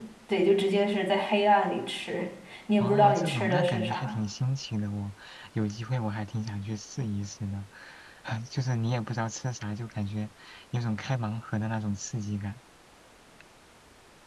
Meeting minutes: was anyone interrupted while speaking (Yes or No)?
Yes